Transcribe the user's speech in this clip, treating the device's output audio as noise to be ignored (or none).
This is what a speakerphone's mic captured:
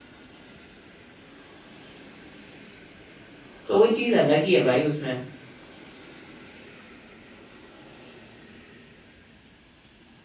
तो वो चीज अलग ही है भाई उसमें